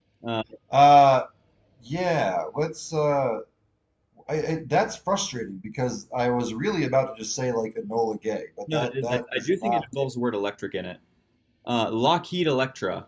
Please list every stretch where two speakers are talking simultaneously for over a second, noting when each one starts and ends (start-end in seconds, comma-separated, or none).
8.7-10.1